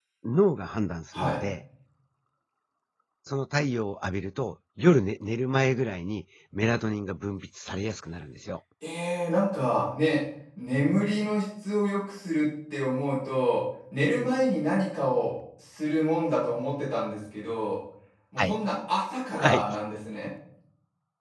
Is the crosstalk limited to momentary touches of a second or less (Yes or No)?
Yes